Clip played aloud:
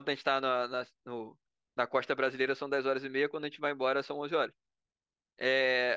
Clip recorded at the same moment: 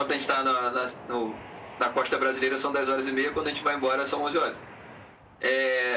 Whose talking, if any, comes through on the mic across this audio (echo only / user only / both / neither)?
echo only